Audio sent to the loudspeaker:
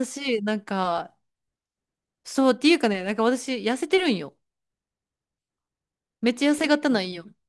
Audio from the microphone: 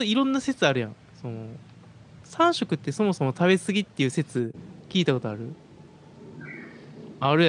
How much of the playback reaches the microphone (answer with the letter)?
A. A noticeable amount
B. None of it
B